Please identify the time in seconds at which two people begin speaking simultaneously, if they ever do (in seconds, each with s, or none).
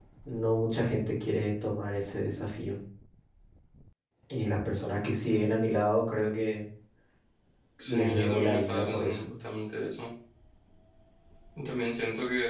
7.8 s